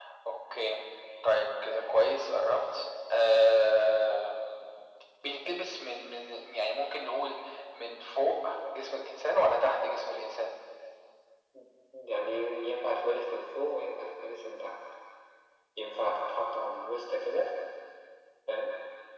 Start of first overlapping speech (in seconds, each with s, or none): none